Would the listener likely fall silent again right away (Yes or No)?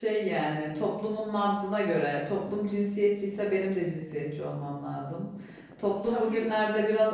Yes